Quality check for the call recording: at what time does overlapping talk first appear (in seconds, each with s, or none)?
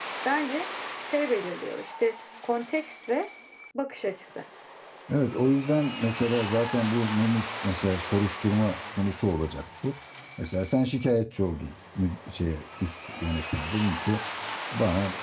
none